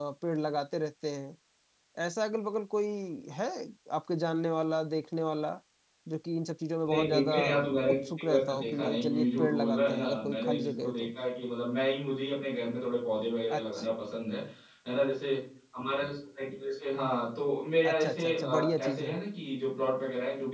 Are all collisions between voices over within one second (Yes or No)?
No